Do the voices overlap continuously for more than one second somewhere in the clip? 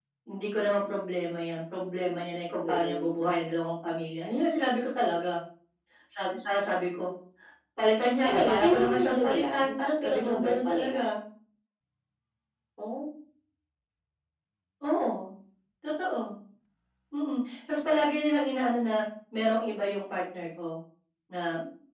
Yes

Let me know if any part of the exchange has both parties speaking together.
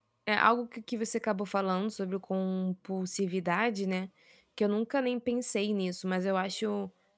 No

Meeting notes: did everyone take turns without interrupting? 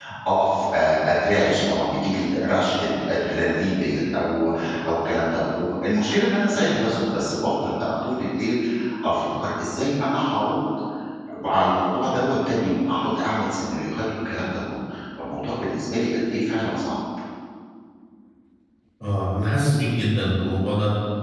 Yes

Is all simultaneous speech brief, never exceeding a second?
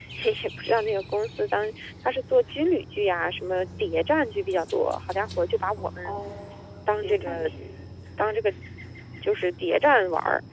Yes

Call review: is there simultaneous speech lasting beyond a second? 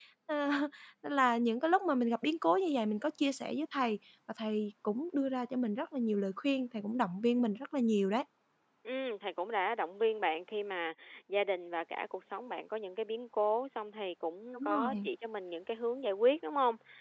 No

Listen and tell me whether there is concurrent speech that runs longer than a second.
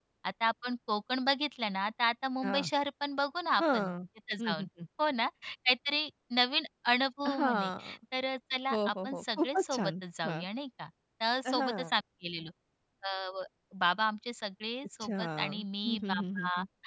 Yes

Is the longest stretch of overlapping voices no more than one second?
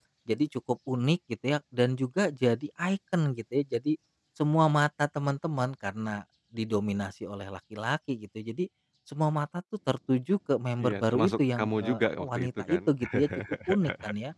No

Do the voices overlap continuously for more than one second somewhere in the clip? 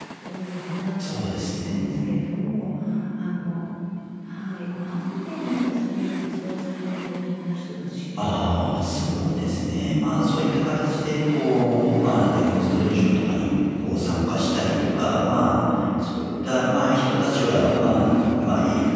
Yes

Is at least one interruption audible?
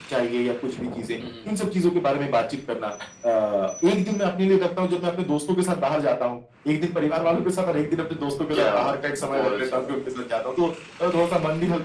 Yes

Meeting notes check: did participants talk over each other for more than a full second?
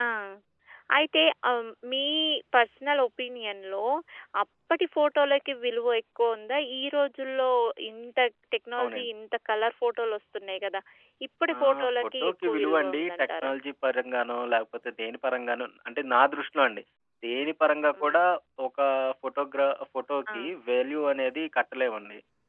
Yes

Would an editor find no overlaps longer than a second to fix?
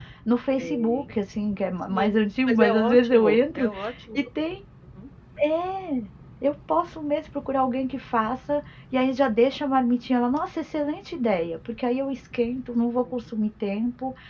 No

